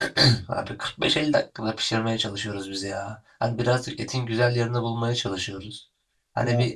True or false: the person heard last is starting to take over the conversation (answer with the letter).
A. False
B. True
A